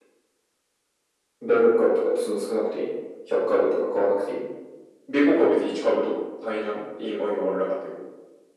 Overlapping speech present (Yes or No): No